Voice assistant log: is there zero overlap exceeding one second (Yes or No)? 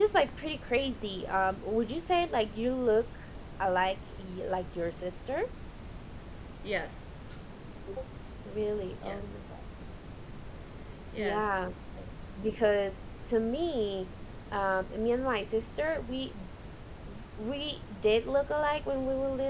Yes